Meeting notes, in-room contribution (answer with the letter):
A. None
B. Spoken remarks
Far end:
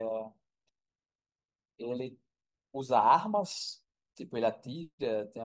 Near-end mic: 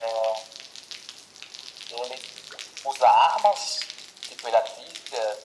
A